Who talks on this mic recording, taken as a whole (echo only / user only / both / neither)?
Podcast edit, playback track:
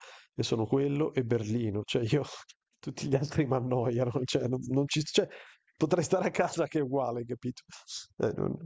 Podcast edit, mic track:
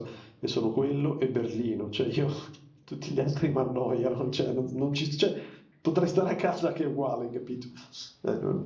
echo only